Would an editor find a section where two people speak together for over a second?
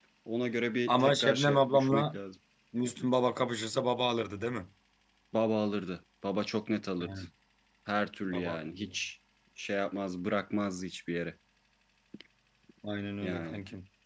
Yes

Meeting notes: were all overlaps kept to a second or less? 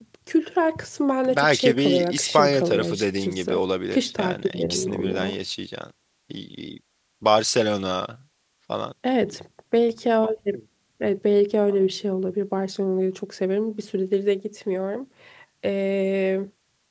No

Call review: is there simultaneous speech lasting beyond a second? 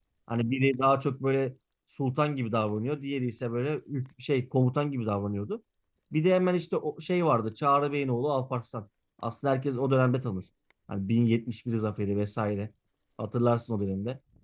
No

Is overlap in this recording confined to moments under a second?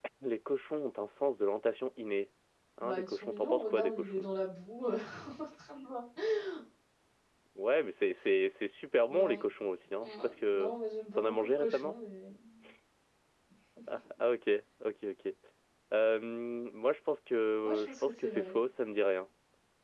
No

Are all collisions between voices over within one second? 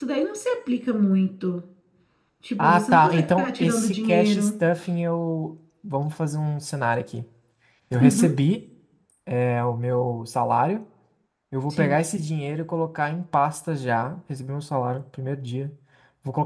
No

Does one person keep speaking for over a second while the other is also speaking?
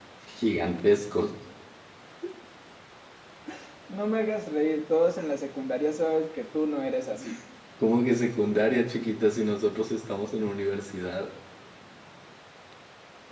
No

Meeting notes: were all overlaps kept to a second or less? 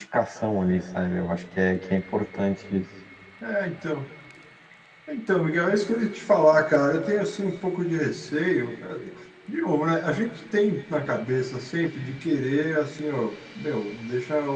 Yes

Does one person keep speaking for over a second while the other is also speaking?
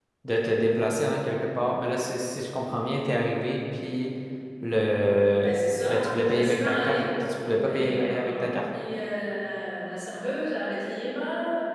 Yes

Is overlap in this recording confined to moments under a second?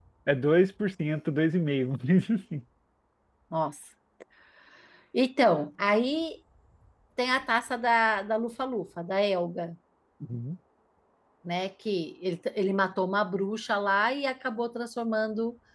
Yes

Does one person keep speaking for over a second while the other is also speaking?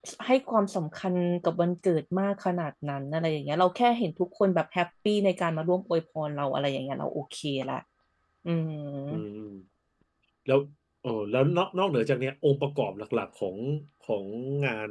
No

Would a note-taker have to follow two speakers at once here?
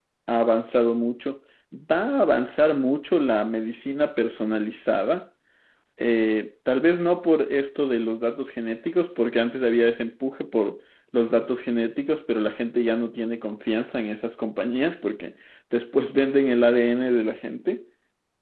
No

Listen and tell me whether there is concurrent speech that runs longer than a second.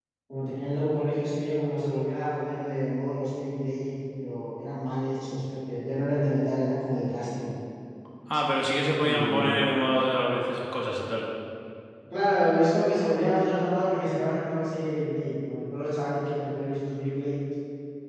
No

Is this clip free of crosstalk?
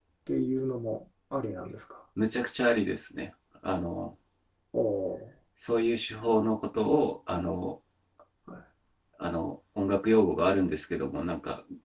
Yes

